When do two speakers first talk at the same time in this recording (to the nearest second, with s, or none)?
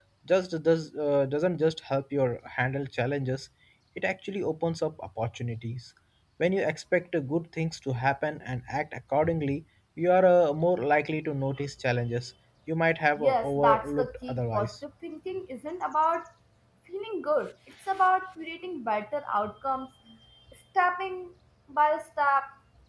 13 s